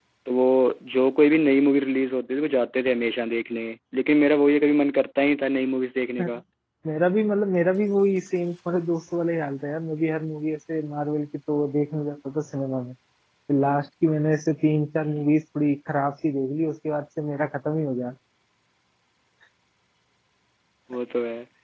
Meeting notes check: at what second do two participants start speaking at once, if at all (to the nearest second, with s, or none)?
none